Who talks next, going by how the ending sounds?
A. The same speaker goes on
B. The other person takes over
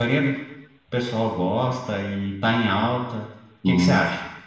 B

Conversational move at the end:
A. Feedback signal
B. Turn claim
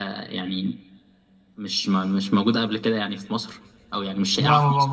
B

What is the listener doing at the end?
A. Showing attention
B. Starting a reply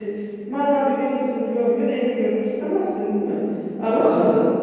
A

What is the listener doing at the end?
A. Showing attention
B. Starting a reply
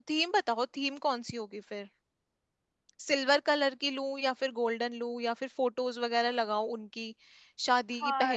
B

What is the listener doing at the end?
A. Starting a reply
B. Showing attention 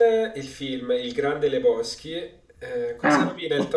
B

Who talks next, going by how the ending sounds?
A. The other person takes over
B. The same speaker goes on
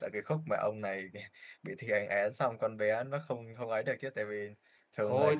A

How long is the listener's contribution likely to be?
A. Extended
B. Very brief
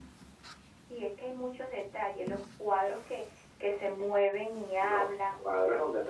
A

